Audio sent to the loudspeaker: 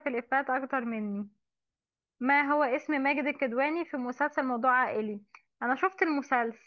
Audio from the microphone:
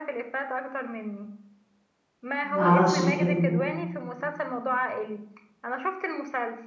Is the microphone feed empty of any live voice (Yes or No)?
No